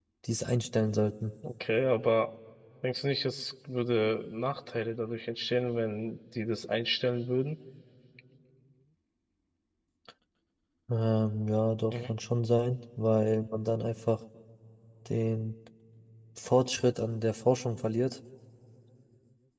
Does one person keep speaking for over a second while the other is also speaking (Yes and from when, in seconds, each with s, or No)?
No